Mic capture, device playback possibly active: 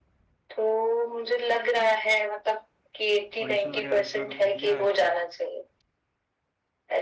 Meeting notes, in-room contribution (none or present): present